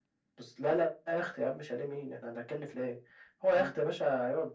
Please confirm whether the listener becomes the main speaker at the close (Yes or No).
No